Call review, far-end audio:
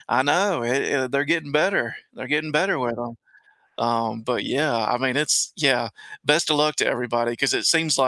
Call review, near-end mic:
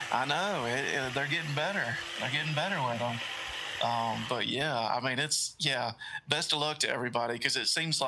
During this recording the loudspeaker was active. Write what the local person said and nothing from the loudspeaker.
none

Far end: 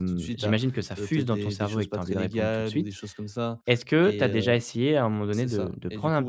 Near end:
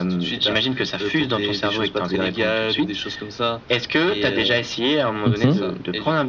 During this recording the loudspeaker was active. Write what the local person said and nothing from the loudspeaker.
Mmh

